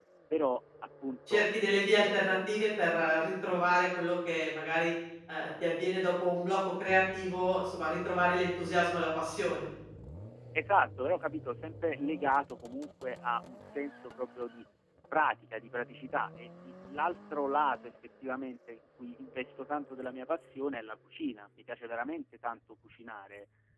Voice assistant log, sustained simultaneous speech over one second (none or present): none